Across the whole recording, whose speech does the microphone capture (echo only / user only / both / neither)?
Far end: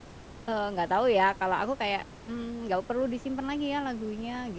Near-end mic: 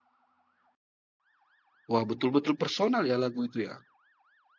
user only